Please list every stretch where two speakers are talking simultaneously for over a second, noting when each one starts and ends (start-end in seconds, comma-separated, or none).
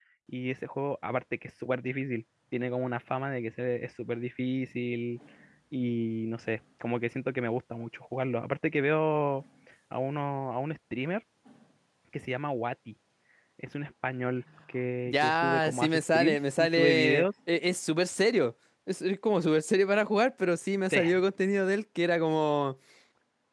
15.1-17.2